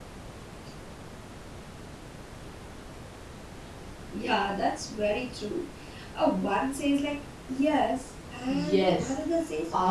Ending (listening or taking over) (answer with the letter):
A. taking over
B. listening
A